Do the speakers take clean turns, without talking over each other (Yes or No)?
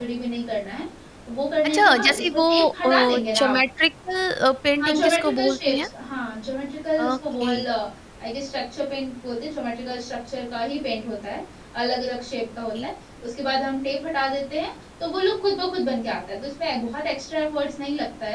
No